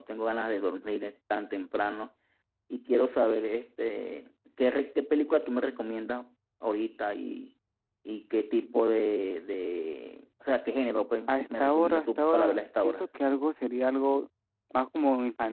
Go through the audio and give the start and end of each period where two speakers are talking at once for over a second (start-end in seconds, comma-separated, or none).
11.3-13.0